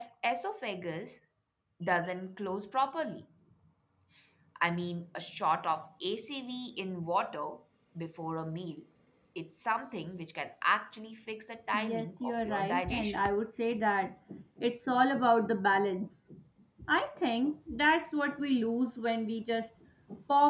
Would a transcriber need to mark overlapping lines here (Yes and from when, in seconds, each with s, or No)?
Yes, from 11.7 s